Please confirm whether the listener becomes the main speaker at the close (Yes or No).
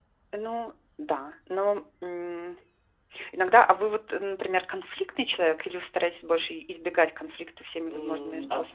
Yes